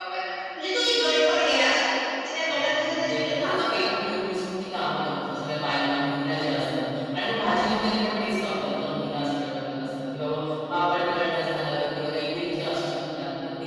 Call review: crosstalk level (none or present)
present